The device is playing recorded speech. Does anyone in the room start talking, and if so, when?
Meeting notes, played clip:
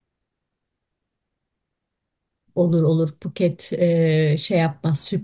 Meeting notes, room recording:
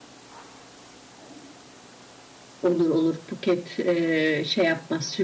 none

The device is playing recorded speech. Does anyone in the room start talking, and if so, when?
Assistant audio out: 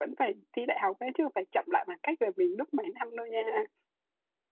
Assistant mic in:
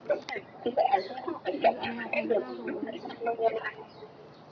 1.5 s

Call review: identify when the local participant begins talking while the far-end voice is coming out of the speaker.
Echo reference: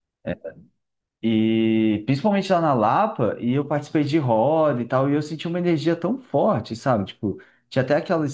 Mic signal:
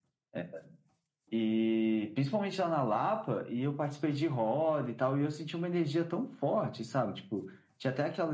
none

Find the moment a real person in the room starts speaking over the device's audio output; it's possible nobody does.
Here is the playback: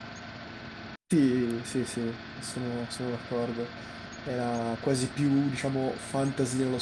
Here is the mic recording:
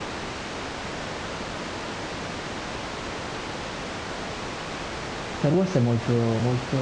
5.3 s

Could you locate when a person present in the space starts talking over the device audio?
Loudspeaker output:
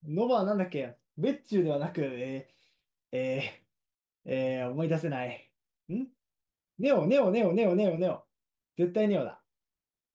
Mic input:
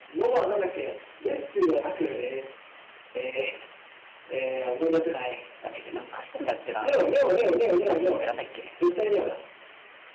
5.6 s

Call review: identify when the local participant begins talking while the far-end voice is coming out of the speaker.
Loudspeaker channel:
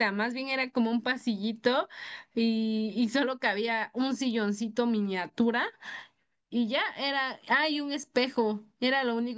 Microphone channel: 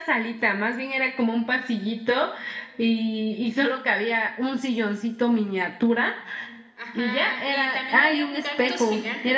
6.7 s

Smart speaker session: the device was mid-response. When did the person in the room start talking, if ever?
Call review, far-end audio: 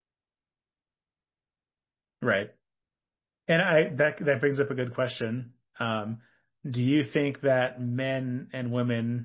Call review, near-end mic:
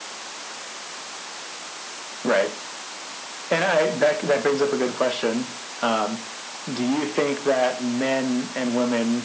none

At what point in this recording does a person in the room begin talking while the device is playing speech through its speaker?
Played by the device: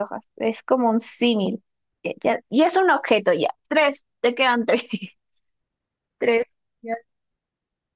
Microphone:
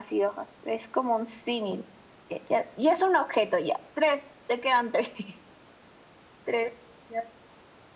none

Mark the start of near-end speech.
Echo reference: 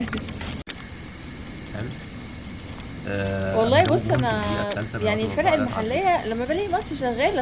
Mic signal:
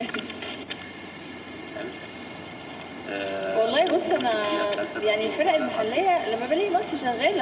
none

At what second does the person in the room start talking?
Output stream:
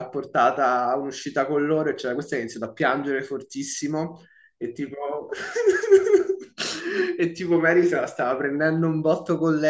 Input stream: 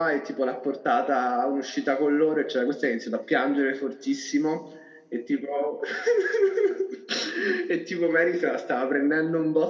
none

